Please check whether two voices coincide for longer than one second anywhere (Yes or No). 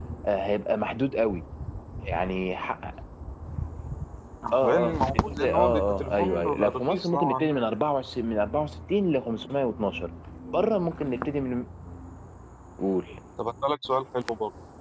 Yes